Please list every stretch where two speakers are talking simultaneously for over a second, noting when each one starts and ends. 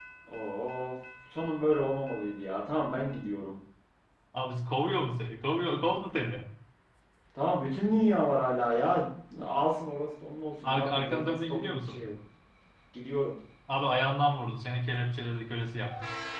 10.6-12.0

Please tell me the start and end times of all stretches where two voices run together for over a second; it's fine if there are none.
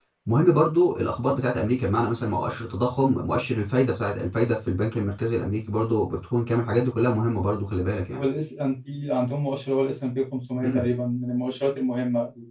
none

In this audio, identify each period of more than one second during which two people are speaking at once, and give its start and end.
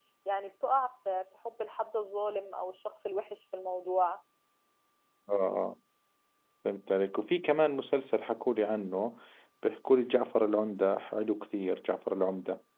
none

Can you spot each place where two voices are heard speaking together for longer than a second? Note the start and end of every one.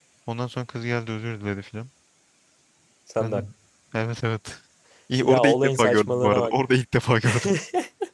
5.2-6.5

